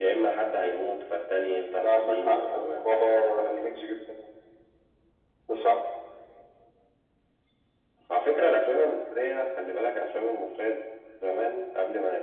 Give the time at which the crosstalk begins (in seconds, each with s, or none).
1.8 s